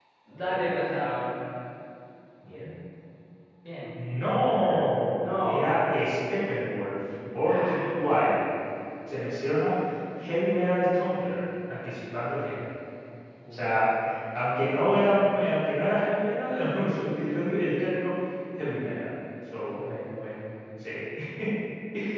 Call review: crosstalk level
present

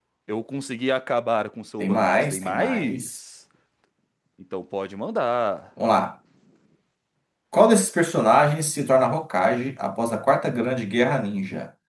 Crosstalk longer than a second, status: present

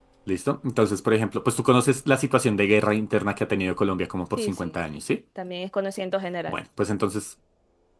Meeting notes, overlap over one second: none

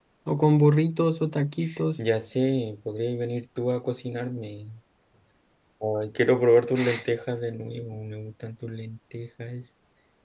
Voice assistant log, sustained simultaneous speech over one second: none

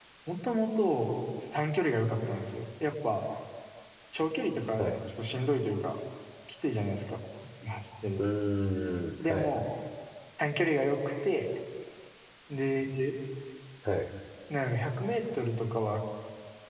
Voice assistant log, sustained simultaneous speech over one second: none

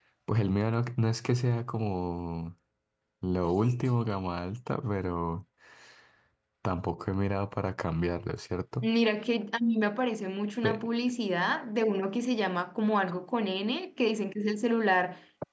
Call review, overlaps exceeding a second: none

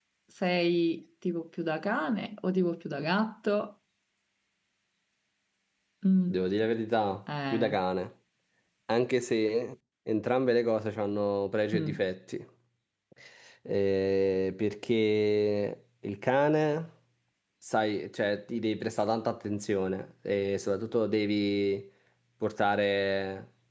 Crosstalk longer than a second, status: none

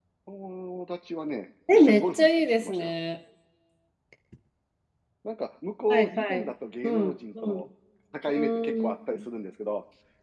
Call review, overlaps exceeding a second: present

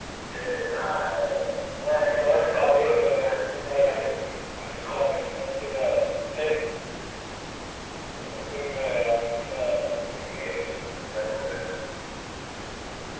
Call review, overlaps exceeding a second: present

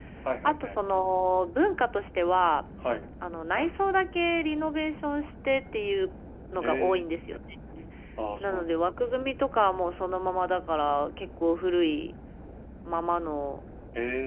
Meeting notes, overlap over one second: none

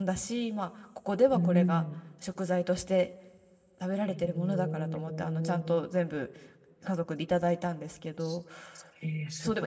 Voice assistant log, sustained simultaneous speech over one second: present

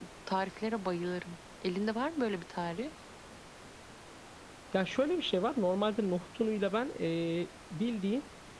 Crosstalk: none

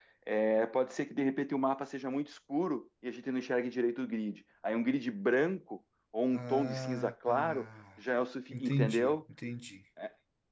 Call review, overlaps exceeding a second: present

